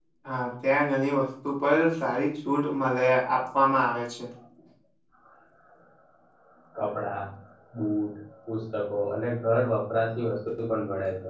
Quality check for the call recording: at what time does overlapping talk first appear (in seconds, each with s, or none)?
none